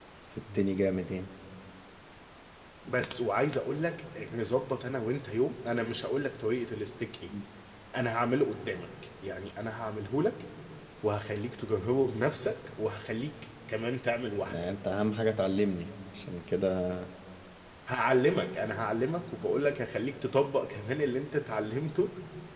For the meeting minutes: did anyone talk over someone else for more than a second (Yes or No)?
No